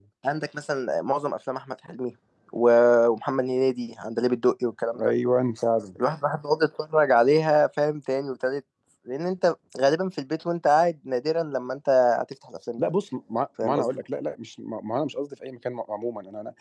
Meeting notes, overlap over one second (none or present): none